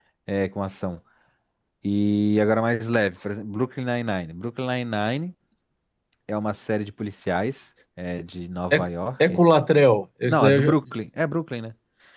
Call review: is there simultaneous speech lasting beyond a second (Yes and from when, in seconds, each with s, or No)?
No